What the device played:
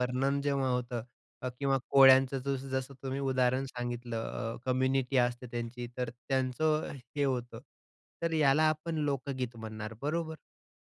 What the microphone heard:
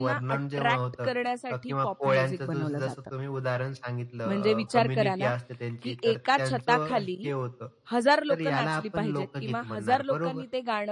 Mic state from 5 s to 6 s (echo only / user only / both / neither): both